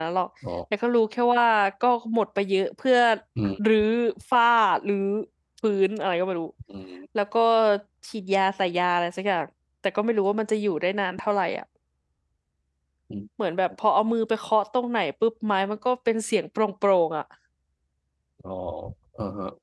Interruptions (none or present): none